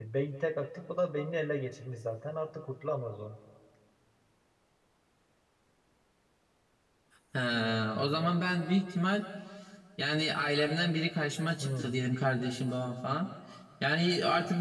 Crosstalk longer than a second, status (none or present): none